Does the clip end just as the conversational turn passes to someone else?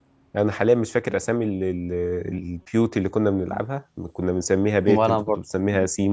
No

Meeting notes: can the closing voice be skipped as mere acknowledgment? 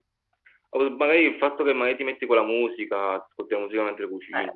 No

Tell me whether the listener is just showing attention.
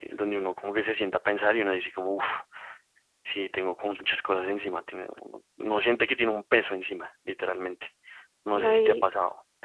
No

